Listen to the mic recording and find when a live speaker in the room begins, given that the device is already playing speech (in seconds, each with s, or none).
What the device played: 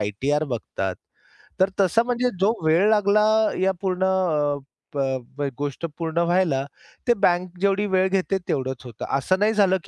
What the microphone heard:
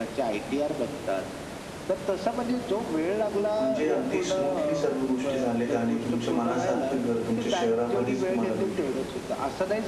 3.6 s